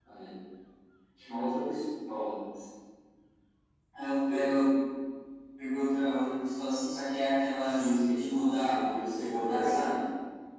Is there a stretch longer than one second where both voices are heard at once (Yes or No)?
Yes